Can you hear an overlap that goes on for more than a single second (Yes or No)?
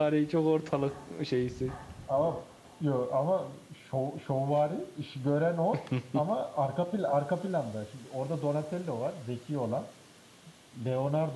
No